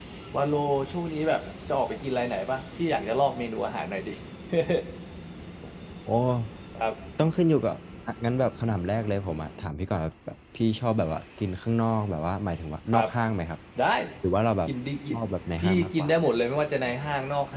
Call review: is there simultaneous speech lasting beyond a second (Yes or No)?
No